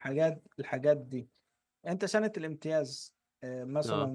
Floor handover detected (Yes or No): No